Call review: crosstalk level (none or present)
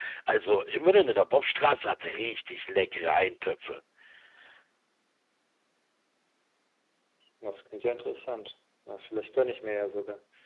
none